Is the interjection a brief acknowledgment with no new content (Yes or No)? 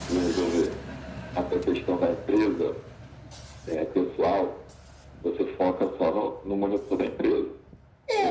No